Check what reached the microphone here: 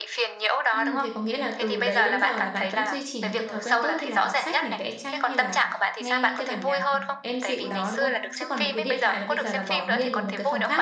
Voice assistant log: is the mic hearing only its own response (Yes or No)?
No